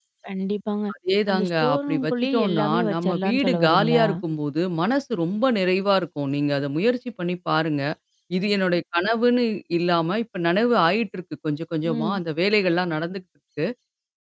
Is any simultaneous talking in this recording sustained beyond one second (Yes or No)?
Yes